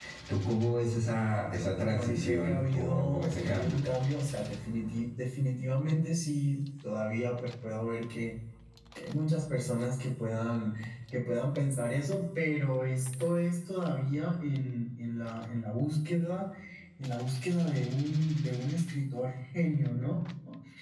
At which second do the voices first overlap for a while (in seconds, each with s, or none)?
1.8 s